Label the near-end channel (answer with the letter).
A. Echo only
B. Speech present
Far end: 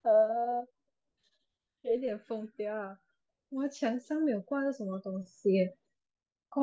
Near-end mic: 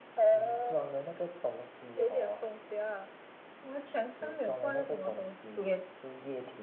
B